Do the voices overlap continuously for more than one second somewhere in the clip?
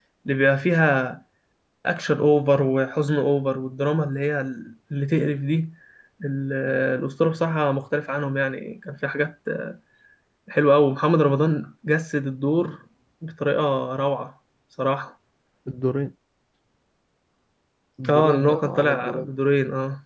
Yes, from 18.1 s

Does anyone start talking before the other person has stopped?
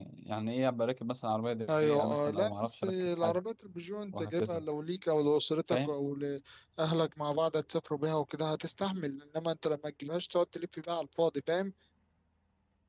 Yes, from 1.8 s

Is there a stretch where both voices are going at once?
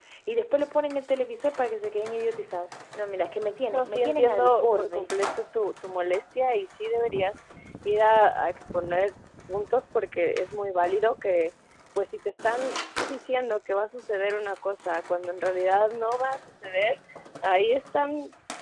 Yes, from 3.7 s

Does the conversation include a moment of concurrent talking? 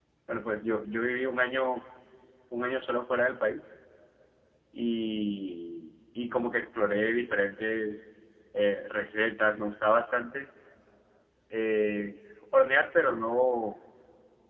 No

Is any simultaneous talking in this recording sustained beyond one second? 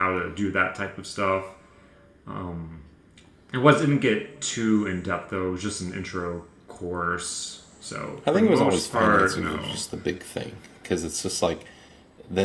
Yes, from 8.3 s

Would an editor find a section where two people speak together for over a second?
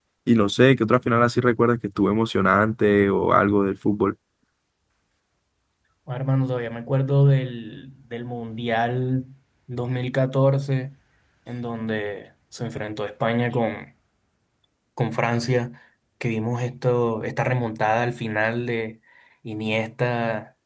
No

